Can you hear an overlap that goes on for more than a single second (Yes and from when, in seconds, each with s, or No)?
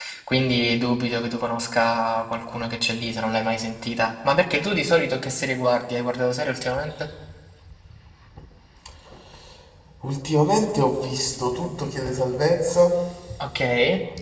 No